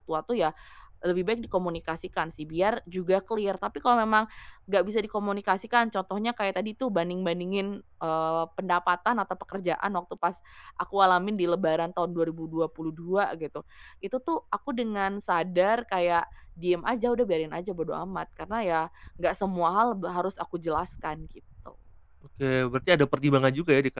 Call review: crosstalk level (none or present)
none